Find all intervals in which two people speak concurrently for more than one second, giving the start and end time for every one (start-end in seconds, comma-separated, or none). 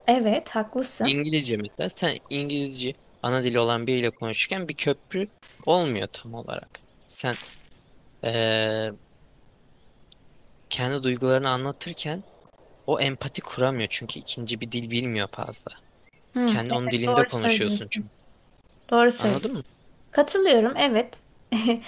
16.5-18.0